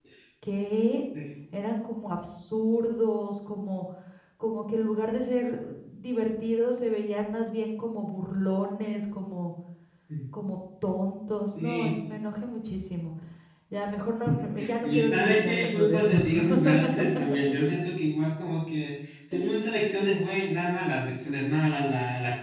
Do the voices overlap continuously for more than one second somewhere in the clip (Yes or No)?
Yes